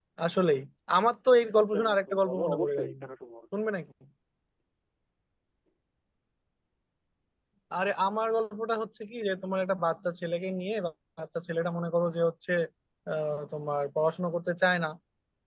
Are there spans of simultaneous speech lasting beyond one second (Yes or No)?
Yes